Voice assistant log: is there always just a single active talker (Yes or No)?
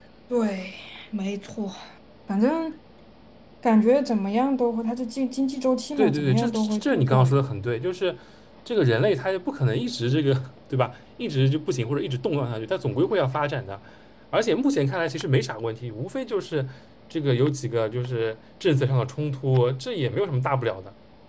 No